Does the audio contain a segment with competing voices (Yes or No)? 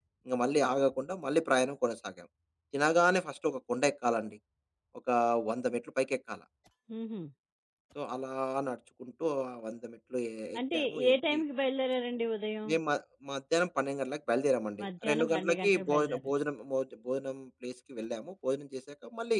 Yes